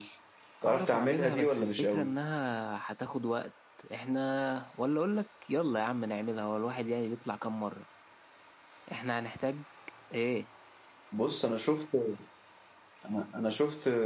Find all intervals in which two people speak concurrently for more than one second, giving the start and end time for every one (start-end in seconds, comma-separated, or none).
0.7-2.1